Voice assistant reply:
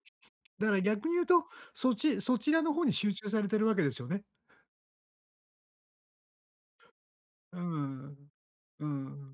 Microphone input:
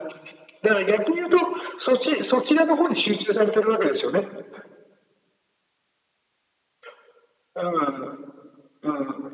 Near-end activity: none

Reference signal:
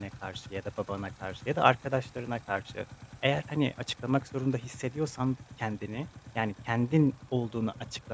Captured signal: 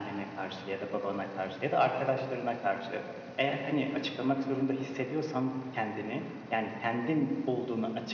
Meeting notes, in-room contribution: none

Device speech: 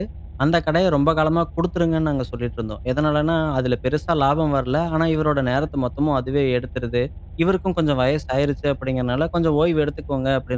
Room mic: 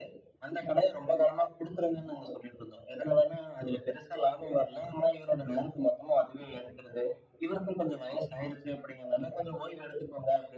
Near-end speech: none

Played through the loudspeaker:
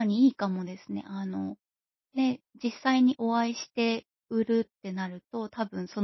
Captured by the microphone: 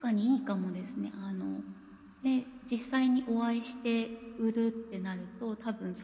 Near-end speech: none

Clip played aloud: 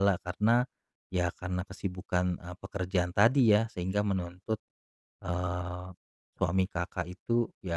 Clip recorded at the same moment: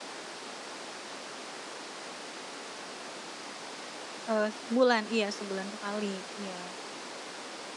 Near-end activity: present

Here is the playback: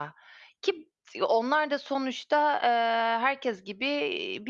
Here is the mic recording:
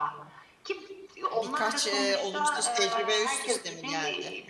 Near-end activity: present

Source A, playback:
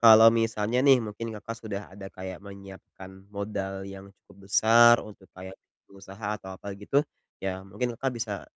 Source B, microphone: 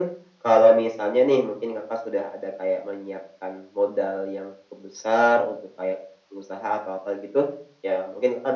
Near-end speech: none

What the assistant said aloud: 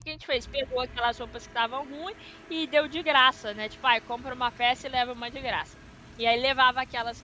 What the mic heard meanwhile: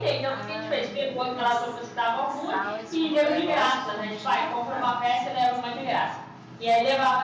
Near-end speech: present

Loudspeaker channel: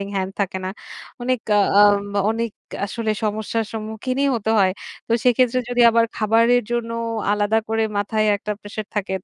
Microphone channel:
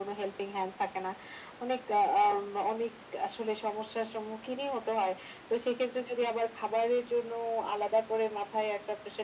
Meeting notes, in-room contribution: none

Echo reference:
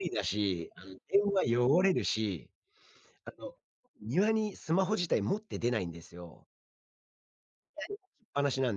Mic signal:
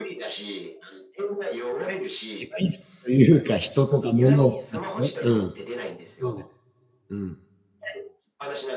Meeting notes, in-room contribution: present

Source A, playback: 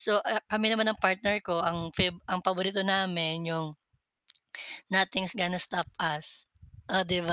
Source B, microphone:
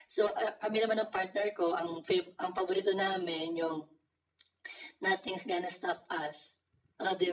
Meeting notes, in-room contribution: none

